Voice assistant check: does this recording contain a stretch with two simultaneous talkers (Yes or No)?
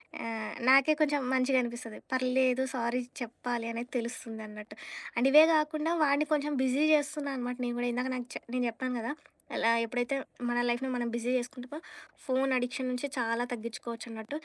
No